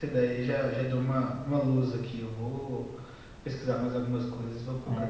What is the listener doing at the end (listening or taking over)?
taking over